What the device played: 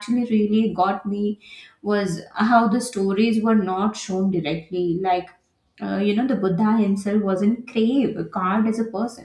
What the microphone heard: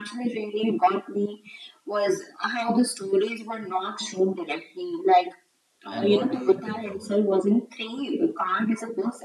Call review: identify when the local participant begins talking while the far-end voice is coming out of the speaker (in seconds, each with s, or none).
5.9 s